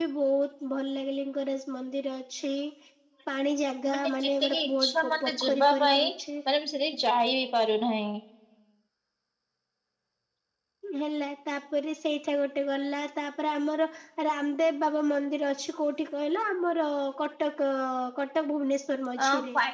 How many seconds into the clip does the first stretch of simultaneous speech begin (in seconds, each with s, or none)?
3.9 s